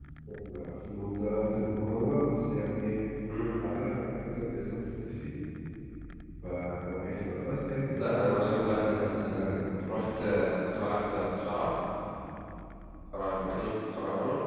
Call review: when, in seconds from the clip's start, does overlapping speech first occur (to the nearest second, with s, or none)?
8 s